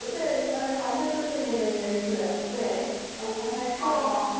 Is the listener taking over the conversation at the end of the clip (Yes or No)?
No